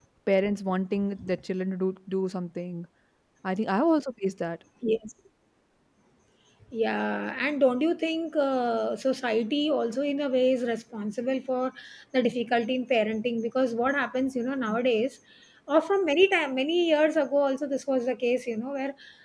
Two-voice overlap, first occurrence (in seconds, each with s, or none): none